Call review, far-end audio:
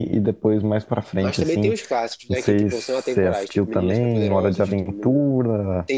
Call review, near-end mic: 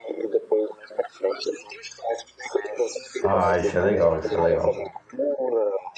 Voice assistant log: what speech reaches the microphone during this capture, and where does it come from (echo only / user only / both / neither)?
both